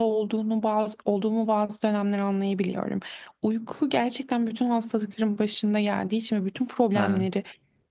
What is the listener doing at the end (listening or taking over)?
listening